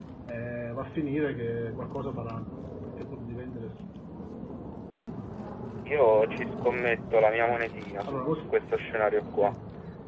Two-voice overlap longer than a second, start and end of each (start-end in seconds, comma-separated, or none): none